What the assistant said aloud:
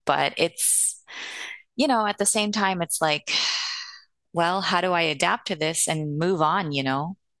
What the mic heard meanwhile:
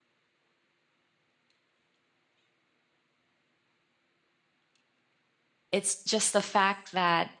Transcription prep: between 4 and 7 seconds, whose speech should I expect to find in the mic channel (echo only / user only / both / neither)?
user only